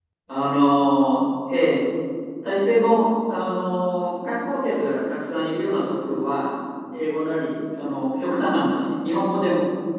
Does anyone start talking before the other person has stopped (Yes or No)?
No